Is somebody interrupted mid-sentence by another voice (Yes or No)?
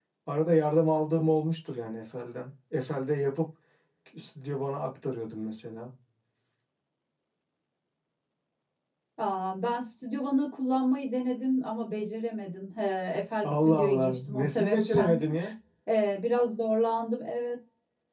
Yes